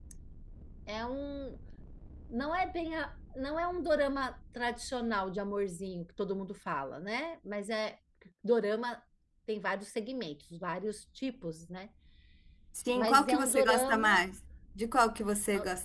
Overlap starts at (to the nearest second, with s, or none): 13 s